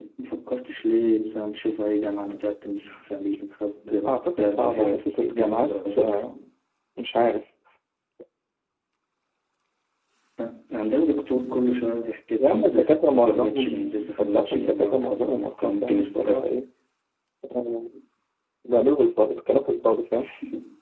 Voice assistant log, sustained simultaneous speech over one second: present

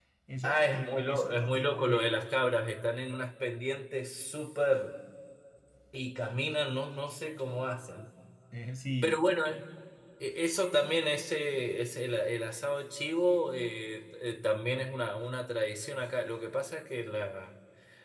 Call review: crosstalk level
present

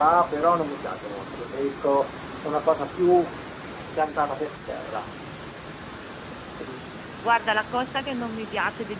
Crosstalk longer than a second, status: none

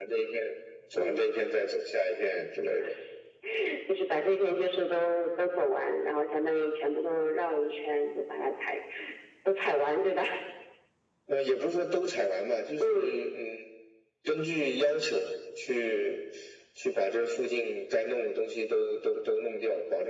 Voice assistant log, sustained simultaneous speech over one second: none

